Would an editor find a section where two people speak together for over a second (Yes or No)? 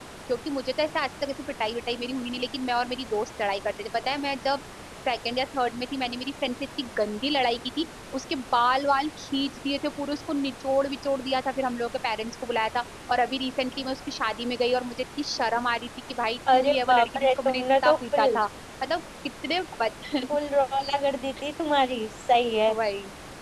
Yes